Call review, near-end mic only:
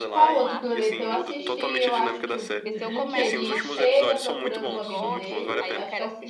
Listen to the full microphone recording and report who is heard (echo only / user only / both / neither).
both